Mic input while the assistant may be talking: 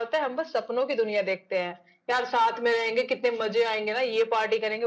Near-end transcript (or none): none